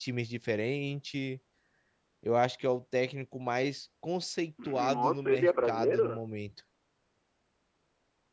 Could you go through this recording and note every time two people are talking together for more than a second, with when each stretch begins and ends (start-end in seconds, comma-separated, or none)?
4.7-6.2